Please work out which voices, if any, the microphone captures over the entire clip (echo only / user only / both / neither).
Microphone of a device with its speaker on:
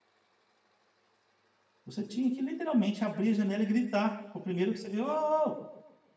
user only